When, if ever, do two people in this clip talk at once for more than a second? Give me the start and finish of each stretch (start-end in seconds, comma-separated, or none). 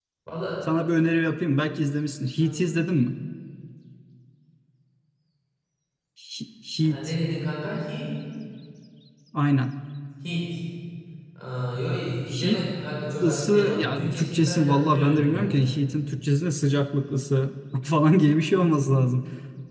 13.2-15.5